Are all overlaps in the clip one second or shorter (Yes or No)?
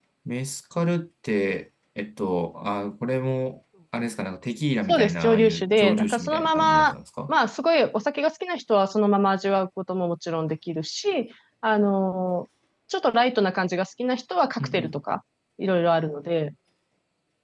No